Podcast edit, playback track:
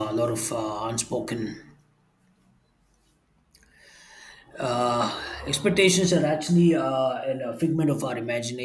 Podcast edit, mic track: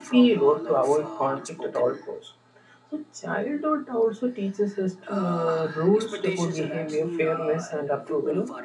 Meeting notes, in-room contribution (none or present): present